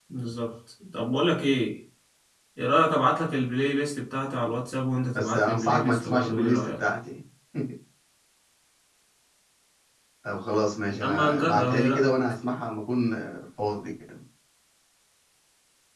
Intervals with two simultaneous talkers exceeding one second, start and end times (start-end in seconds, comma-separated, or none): 5.2-6.8, 10.9-12.2